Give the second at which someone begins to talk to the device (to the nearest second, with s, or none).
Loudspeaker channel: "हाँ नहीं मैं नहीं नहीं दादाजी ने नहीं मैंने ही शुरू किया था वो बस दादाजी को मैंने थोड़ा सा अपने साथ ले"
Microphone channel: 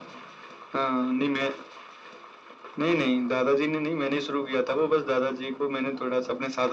none